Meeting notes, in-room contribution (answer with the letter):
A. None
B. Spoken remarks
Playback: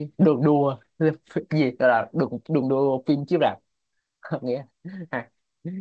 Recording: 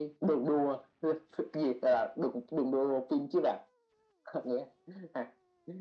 A